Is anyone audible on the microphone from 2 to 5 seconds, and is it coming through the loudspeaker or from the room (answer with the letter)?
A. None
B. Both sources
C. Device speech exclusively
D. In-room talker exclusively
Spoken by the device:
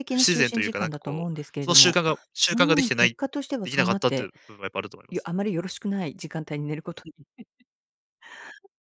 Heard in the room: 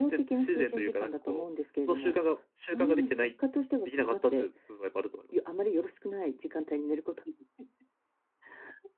C